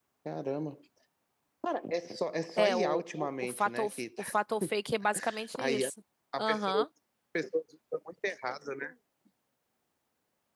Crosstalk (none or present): present